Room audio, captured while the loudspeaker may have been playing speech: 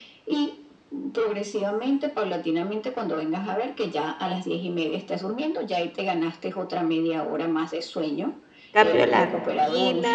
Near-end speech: present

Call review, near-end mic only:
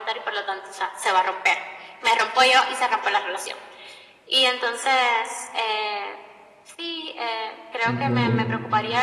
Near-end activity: present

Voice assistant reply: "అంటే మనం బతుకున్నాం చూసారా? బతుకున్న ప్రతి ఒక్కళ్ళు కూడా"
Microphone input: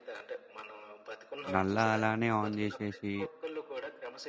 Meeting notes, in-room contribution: present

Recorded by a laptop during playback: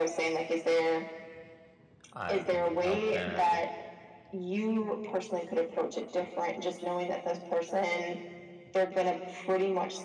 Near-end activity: present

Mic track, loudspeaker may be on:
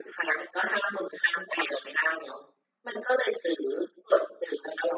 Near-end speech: none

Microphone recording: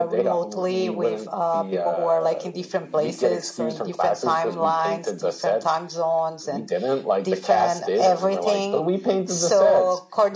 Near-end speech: none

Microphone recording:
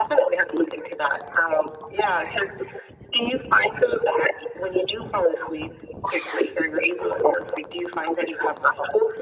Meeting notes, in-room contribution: none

